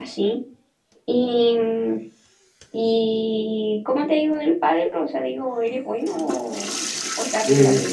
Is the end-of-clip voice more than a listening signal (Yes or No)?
Yes